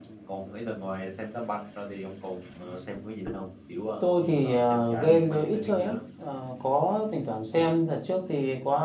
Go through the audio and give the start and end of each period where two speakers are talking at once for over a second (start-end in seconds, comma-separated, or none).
4.0-6.0